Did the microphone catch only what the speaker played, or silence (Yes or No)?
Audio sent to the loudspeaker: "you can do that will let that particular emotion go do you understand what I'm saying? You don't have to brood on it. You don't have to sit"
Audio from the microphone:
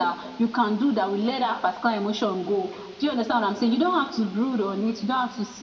Yes